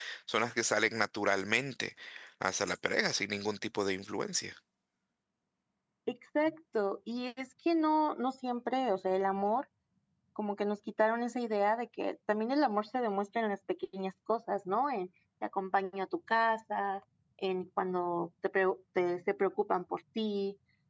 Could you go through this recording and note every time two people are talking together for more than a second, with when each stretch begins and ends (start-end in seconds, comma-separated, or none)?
none